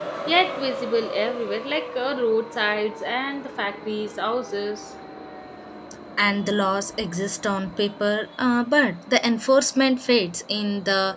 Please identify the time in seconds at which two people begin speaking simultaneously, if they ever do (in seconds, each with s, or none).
none